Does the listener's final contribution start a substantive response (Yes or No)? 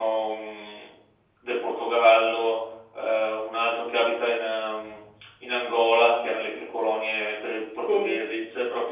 No